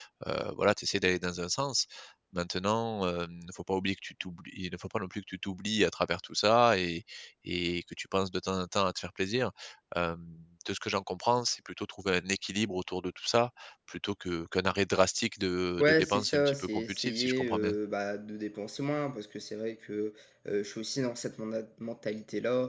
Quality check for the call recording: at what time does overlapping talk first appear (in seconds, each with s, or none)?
15.8 s